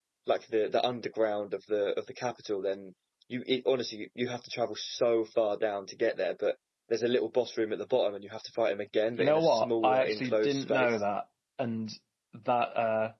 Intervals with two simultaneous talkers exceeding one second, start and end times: 9.2-11.0

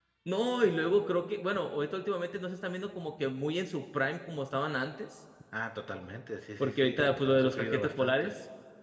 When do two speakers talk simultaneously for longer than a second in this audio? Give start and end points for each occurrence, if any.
6.6-8.3

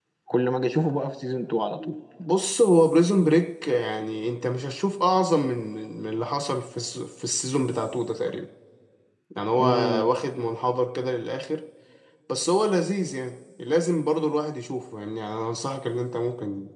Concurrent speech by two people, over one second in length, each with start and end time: none

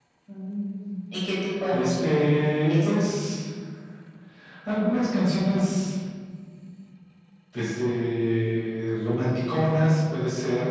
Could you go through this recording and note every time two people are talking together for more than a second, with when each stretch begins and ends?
none

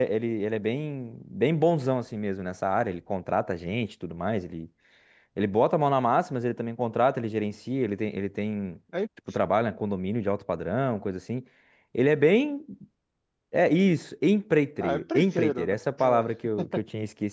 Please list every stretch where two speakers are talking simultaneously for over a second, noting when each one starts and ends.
14.8-16.3

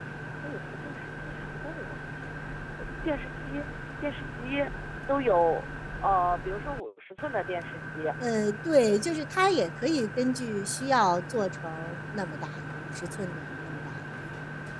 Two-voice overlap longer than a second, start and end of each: none

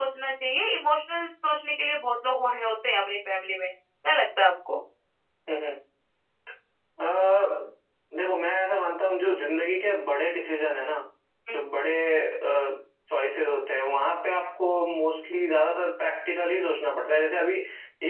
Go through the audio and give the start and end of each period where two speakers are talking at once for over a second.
none

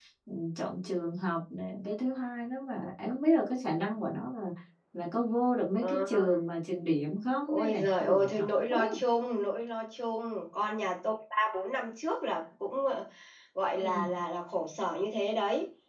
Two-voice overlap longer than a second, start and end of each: 7.5-8.8

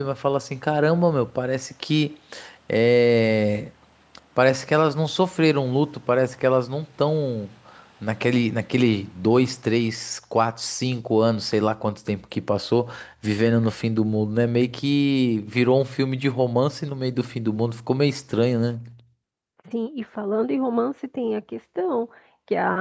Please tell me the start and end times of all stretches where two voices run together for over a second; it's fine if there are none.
none

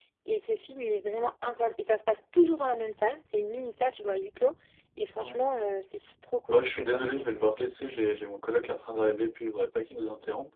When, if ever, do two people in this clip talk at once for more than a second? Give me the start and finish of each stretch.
6.5-7.7

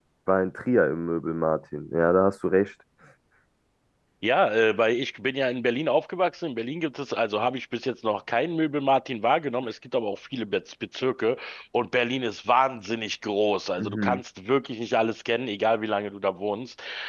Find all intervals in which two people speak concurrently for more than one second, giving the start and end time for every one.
none

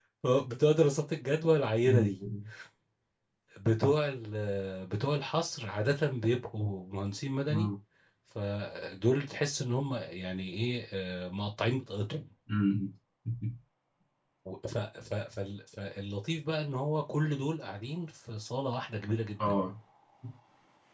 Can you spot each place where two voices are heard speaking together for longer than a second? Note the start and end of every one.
none

